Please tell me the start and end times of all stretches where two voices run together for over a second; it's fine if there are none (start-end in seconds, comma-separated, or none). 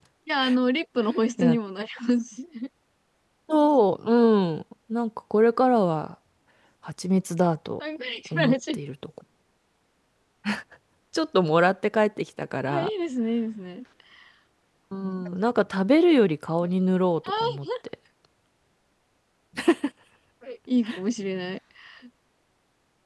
none